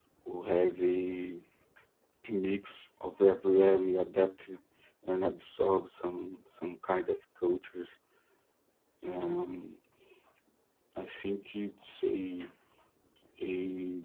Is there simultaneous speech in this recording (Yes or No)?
No